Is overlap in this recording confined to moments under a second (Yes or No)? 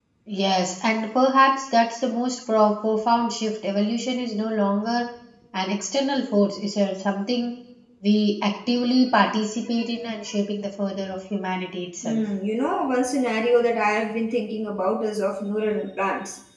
Yes